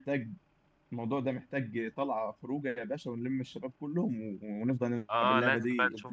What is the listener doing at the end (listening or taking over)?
taking over